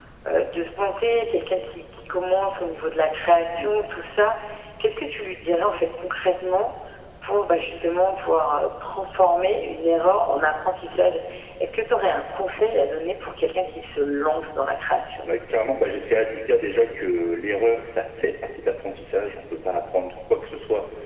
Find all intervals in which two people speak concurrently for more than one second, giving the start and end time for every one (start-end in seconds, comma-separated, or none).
none